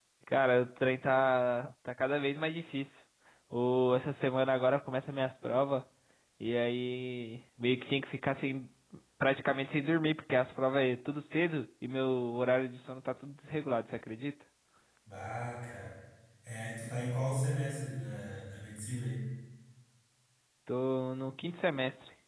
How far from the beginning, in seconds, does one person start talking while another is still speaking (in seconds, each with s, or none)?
none